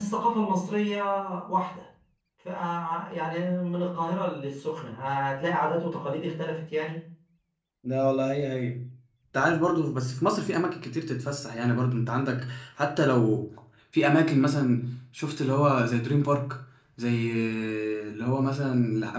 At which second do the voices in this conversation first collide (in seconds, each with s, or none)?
none